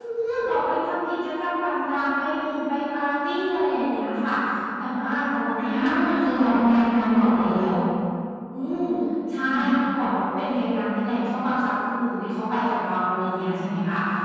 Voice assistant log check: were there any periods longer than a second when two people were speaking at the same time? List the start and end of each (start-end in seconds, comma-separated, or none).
6.2-7.7